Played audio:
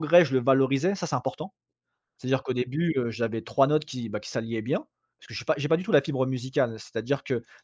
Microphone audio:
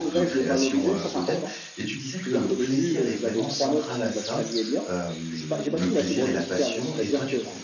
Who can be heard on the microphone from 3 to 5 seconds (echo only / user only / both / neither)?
both